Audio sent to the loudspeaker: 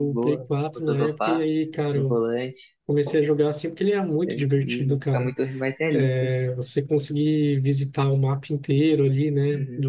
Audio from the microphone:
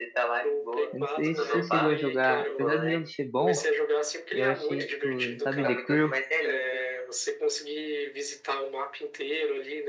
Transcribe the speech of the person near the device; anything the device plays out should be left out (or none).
Eu não sei se você chegou a jogar, apesar do jogo ser bom. Eu achei, tipo, sabe, The Crew?